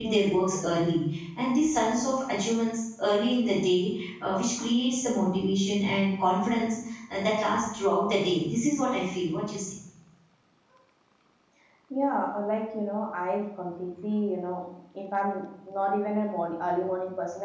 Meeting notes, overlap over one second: none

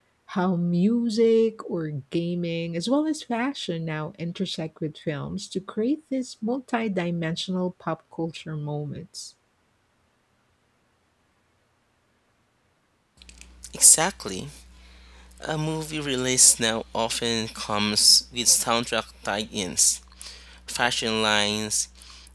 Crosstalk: none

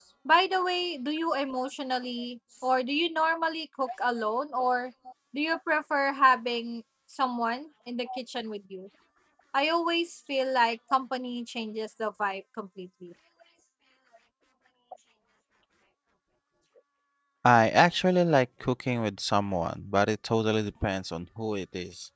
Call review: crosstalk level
none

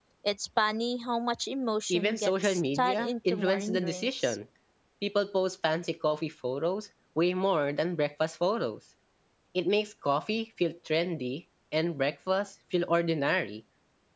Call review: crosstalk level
present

